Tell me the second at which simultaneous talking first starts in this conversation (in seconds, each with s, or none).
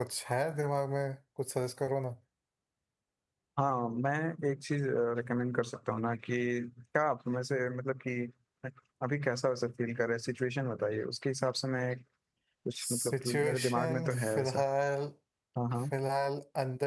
12.8 s